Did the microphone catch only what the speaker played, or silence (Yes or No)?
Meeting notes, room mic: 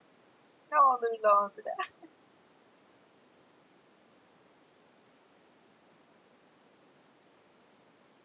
No